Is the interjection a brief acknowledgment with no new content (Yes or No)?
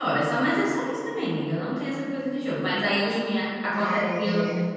Yes